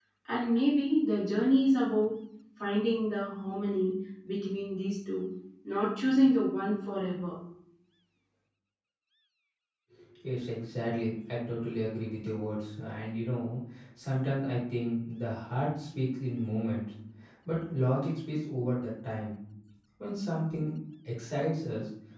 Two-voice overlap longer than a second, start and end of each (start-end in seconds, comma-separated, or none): none